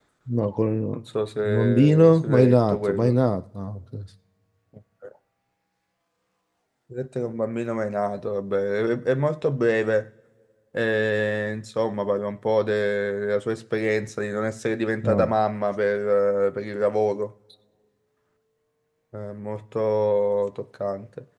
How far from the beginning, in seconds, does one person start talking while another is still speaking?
1 s

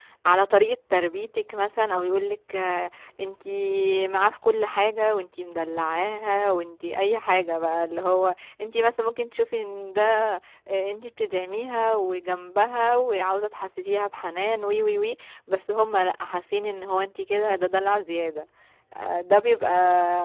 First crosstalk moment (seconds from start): none

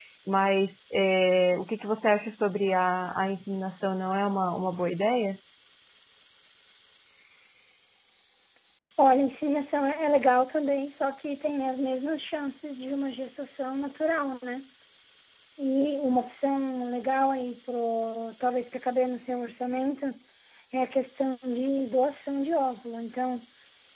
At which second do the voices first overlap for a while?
none

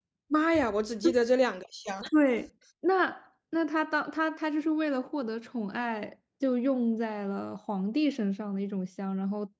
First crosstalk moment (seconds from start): none

